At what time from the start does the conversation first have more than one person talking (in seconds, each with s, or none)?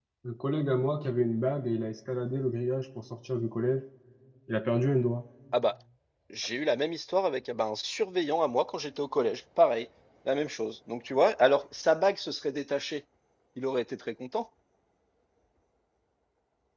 none